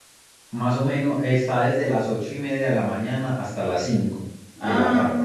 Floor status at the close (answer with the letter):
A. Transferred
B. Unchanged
A